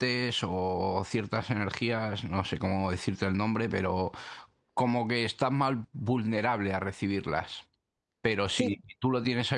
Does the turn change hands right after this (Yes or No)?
No